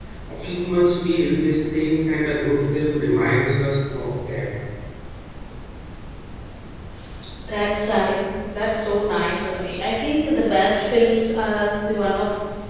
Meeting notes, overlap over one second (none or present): none